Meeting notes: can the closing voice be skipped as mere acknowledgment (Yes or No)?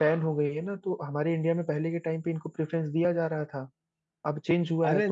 No